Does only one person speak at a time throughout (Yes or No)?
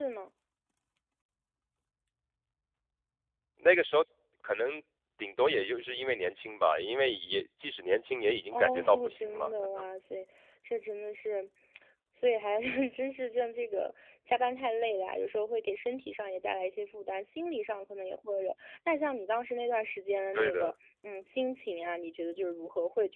No